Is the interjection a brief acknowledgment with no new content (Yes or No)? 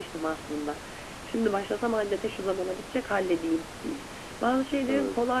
Yes